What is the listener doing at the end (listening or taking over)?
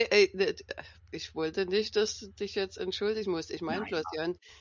listening